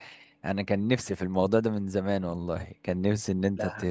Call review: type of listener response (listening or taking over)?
listening